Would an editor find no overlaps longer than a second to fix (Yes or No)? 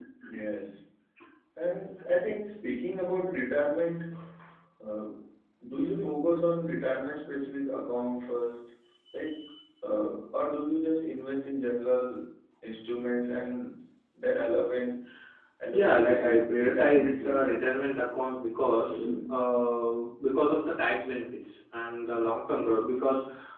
No